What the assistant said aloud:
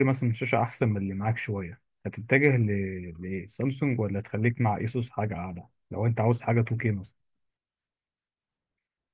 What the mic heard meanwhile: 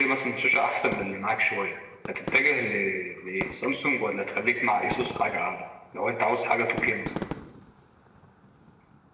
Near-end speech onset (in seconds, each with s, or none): none